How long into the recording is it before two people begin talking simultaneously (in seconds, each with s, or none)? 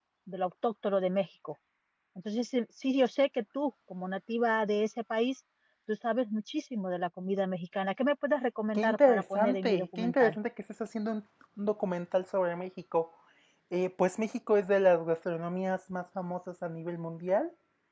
8.8 s